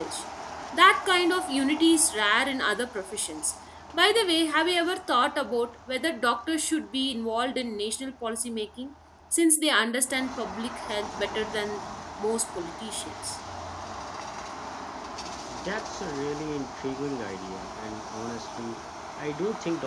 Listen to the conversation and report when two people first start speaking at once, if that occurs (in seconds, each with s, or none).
none